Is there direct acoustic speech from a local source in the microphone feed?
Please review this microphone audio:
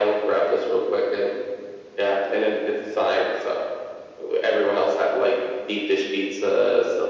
No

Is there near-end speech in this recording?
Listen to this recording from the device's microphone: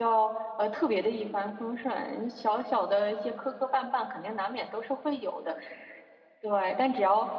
Yes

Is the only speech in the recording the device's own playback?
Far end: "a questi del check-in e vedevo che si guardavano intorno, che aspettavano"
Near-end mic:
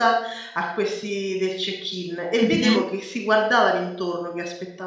No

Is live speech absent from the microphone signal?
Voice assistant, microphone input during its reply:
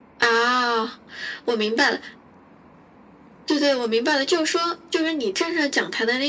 Yes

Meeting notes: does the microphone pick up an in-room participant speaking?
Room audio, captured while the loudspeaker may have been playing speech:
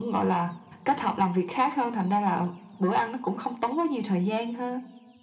No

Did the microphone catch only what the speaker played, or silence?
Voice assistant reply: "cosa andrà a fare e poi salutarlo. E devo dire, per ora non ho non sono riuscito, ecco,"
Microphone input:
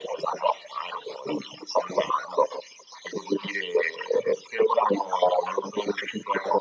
Yes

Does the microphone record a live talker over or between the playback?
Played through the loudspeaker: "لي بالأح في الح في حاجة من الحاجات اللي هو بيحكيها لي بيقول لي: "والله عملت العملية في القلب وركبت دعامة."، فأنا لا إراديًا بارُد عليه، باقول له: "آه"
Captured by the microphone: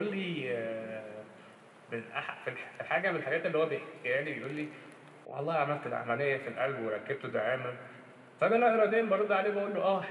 No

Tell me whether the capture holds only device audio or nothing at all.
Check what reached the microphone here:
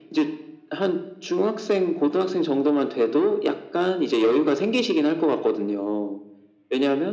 Yes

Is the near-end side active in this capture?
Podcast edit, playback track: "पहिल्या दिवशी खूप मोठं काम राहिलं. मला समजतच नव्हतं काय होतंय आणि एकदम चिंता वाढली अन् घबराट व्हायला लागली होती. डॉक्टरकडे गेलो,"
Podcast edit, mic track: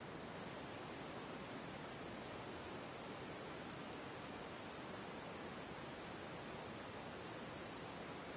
No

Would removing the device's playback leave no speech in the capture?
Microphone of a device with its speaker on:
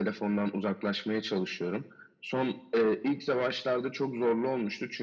Yes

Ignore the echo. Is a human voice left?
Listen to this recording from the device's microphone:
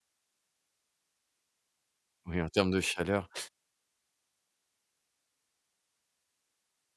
Yes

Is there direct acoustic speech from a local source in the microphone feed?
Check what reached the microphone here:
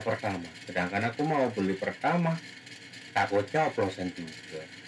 No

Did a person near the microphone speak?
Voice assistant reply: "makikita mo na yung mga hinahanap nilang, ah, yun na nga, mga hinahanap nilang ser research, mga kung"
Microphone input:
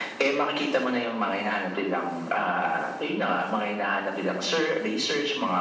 No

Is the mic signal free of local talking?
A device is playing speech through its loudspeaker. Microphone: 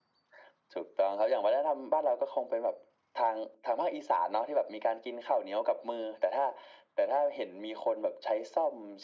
Yes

